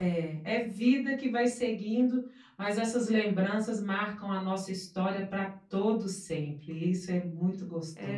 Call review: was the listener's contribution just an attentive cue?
No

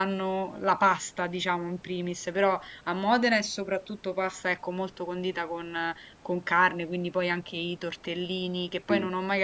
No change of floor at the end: Yes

